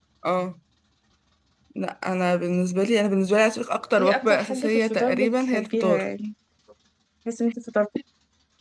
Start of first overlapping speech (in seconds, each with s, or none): 4.0 s